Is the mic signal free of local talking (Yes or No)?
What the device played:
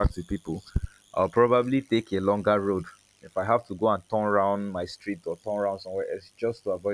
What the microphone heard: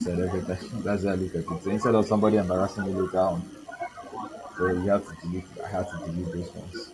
No